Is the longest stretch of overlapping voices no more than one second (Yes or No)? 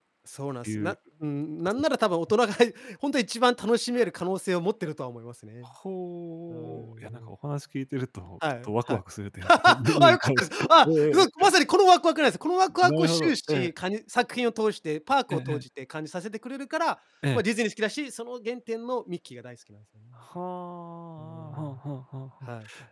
No